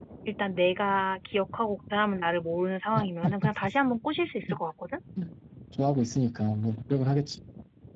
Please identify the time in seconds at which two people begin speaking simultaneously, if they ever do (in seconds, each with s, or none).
none